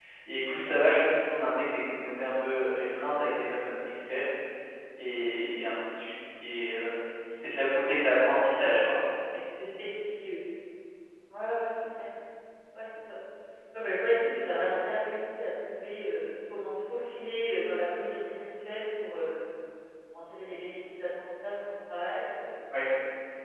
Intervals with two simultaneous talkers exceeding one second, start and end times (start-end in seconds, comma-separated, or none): none